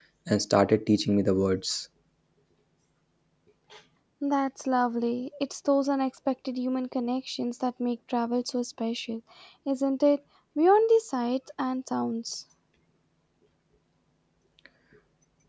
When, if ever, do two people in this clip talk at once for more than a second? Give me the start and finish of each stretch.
none

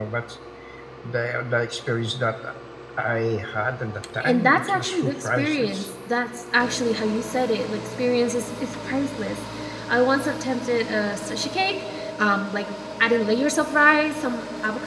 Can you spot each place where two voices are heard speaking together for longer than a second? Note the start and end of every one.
4.2-5.9

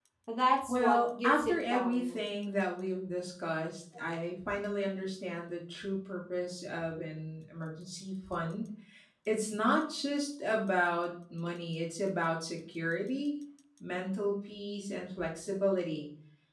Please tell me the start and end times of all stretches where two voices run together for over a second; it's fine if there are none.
0.7-2.2

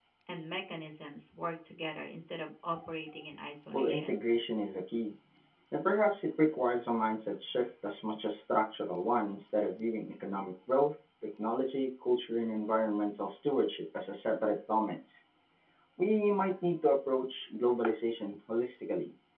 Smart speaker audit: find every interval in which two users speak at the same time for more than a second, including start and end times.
none

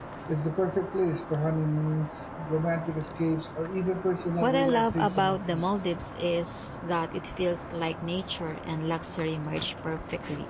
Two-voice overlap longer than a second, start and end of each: 4.4-5.7

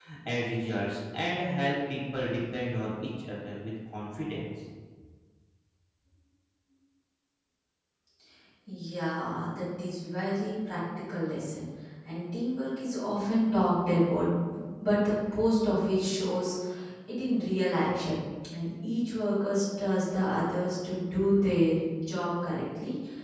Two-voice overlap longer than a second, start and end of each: none

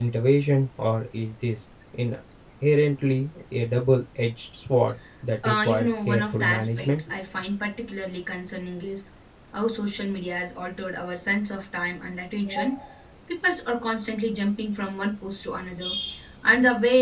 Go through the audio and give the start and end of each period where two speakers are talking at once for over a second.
5.5-7.0

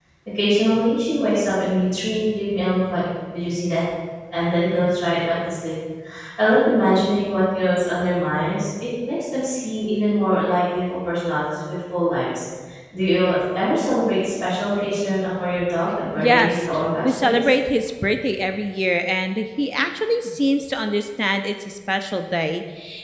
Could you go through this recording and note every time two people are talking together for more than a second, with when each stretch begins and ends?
16.2-17.4

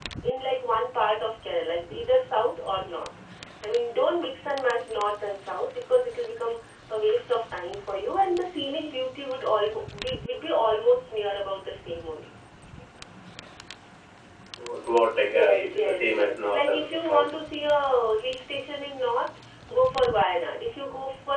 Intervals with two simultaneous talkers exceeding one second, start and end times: 15.2-17.3

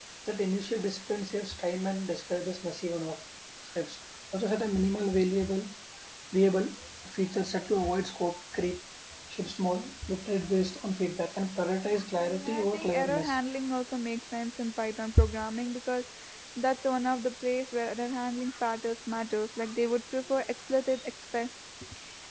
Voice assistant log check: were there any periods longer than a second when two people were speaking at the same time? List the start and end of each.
12.1-13.4

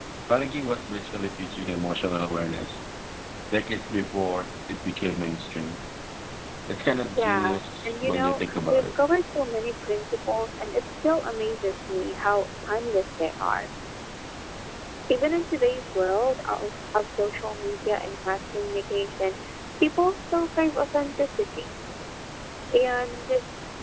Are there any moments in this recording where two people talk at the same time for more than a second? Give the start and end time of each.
7.2-8.9

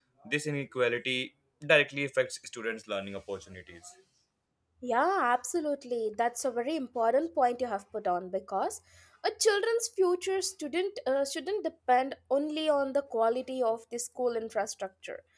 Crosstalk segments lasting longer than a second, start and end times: none

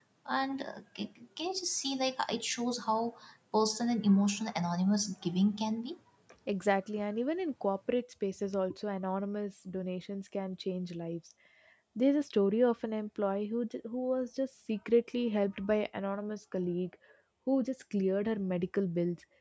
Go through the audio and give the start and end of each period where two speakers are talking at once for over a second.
none

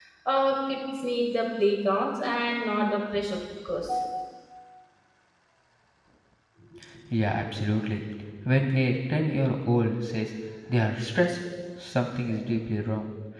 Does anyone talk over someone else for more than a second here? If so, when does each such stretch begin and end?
none

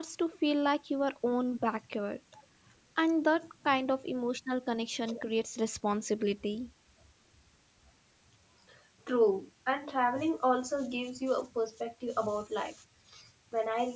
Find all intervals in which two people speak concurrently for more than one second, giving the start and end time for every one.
none

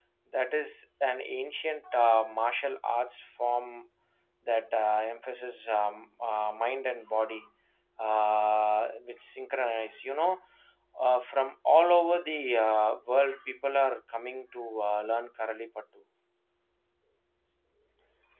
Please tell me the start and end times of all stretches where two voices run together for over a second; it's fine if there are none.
none

